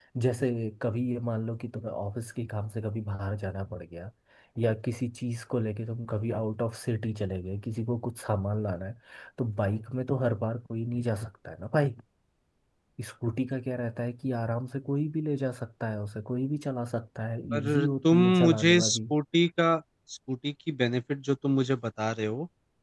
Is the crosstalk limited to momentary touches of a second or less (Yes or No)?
No